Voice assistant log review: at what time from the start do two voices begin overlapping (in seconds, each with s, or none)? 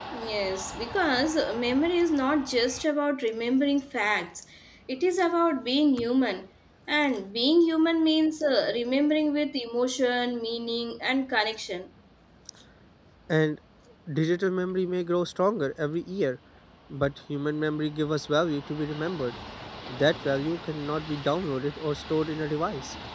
none